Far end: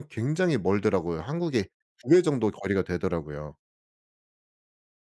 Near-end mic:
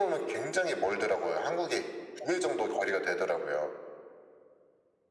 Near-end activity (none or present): none